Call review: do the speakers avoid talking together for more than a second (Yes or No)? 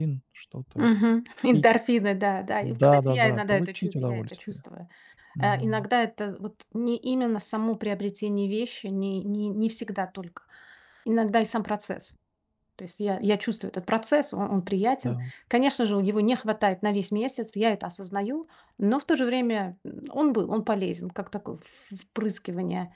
No